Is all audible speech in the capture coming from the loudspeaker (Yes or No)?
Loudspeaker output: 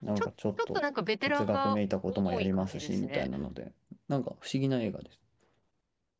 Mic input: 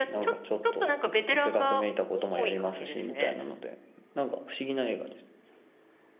Yes